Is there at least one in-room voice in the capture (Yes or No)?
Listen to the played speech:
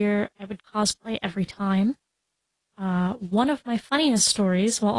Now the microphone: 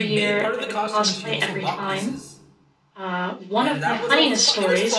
Yes